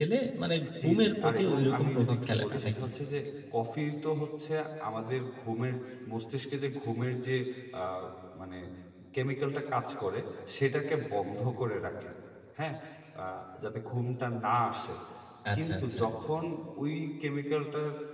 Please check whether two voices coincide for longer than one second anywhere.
Yes, from 0.8 s

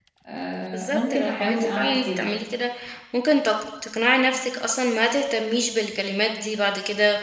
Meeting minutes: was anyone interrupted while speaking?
Yes, from 0.7 s

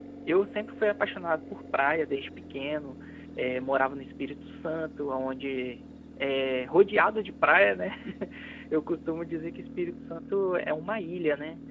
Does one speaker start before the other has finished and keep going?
No

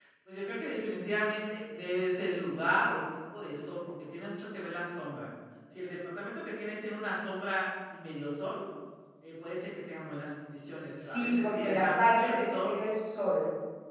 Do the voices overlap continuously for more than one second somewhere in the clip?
Yes, from 10.9 s

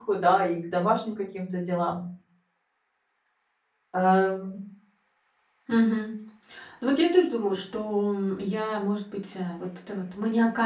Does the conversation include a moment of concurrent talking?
No

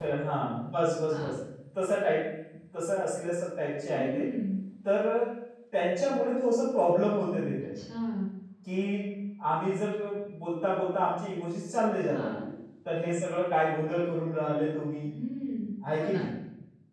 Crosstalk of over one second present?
No

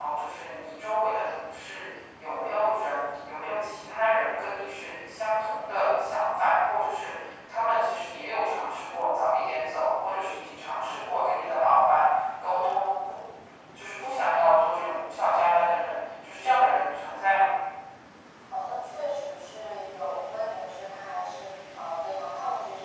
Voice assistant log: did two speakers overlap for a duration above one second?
No

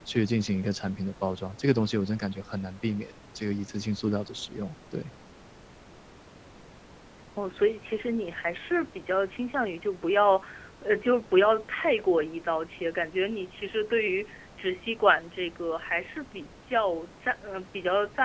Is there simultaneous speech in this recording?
No

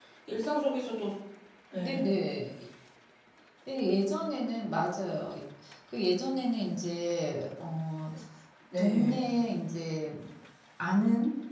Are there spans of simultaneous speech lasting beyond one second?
No

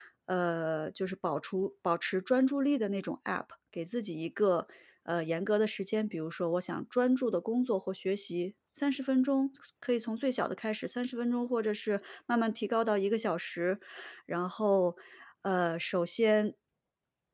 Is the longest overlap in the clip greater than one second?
No

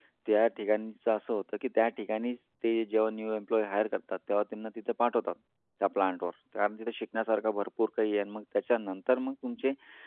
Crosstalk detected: No

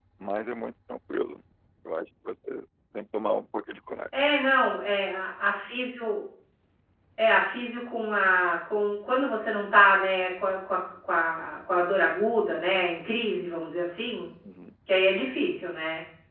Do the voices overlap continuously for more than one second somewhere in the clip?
No

